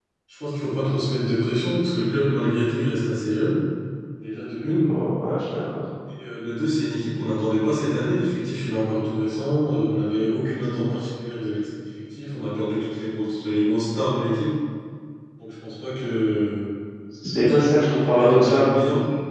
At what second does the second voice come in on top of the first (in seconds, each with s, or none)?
17.4 s